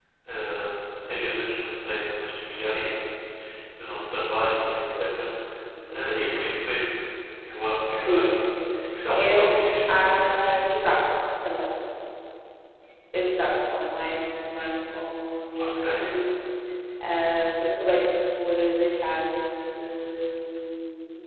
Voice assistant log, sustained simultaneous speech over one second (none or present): present